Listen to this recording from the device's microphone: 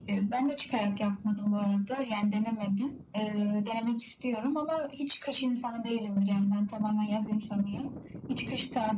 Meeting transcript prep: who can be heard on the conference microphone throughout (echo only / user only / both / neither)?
echo only